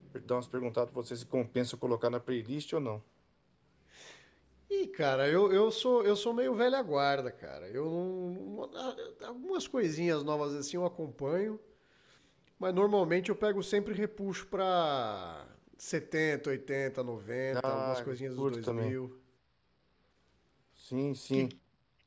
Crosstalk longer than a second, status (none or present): present